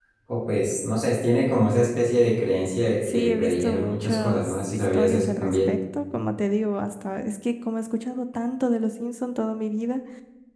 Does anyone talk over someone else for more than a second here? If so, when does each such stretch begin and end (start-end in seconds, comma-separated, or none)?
3.1-5.7